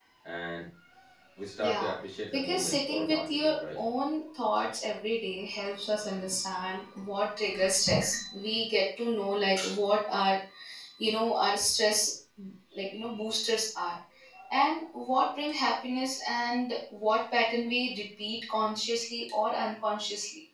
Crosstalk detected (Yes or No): Yes